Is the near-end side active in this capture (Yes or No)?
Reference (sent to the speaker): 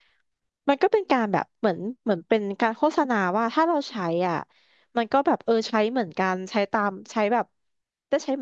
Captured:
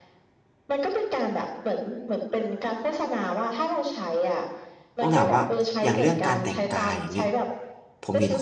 Yes